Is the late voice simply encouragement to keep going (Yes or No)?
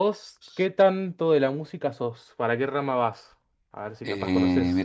No